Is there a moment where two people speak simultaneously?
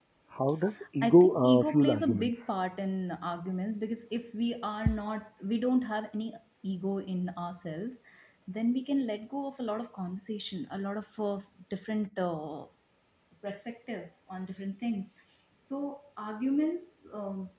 Yes, from 1.0 s

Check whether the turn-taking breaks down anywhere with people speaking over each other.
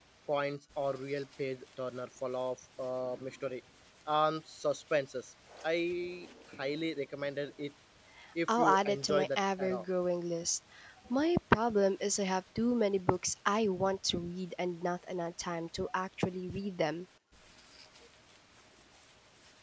Yes, from 8.5 s

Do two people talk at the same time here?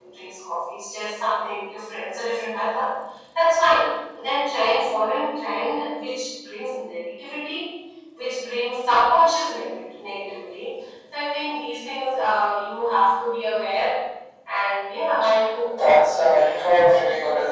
Yes, from 15.7 s

